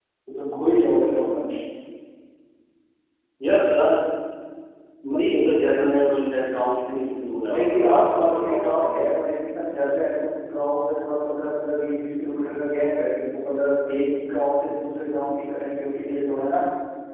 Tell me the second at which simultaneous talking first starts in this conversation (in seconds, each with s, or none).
7.4 s